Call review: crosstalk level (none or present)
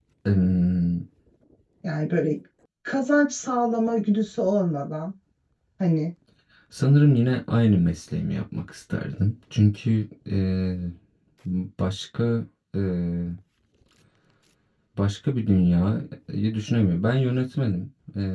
none